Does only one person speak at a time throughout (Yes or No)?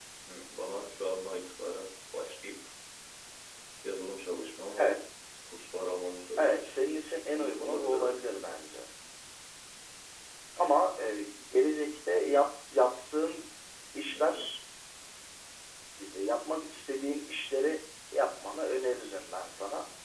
No